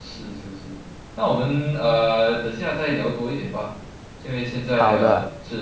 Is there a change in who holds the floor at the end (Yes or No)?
No